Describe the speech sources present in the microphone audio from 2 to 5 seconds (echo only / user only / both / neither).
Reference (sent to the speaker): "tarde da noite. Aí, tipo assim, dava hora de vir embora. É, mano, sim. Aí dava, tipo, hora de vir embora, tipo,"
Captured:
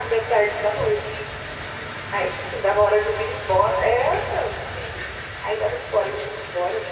echo only